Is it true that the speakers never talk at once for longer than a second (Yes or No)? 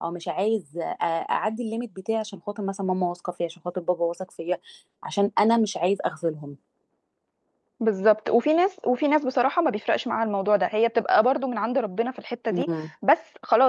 Yes